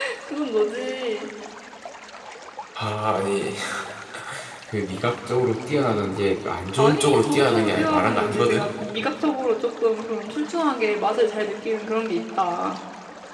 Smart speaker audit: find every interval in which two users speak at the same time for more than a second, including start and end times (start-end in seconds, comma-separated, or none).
6.8-8.6